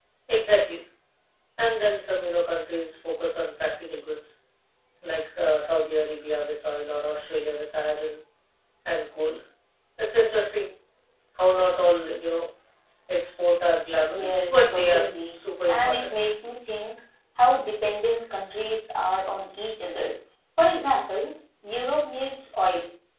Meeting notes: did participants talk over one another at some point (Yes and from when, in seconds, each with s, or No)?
Yes, from 14.1 s